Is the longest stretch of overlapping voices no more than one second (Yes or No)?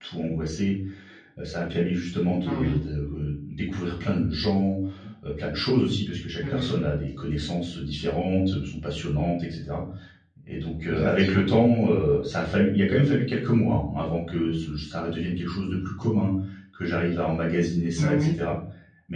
Yes